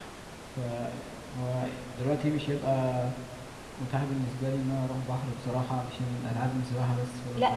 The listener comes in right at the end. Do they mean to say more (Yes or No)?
Yes